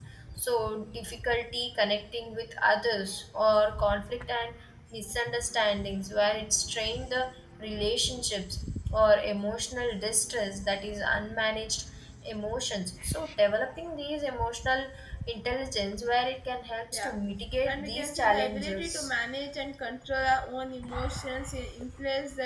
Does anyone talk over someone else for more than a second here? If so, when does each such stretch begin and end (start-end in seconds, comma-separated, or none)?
17.6-19.1